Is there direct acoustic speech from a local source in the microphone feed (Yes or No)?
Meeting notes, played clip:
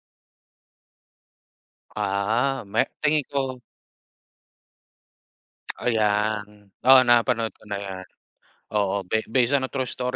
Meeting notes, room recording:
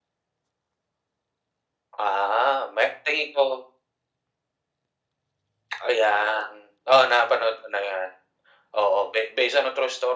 No